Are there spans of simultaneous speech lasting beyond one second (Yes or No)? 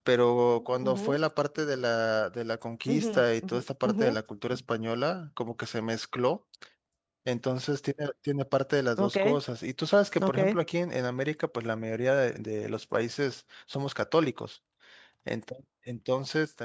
Yes